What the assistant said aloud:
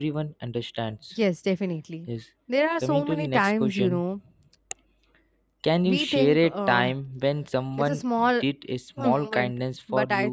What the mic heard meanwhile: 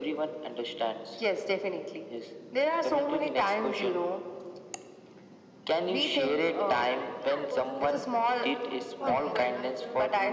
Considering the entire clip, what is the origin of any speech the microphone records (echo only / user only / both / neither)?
both